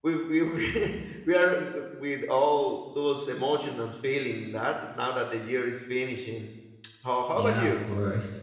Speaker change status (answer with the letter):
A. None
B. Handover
B